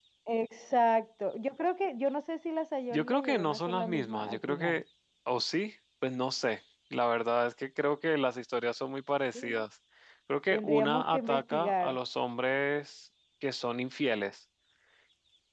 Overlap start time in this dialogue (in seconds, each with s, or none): 2.9 s